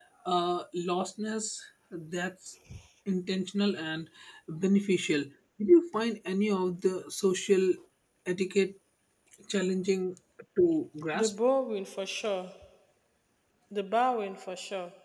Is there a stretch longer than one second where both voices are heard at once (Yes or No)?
No